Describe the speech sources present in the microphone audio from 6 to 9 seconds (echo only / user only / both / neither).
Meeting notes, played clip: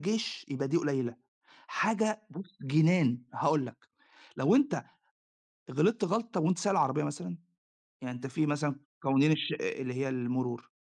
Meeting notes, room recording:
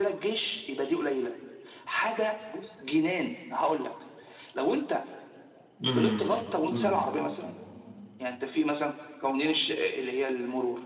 both